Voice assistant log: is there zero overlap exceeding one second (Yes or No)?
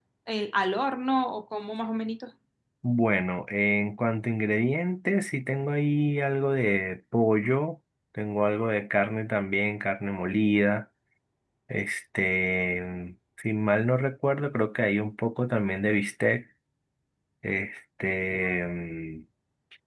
Yes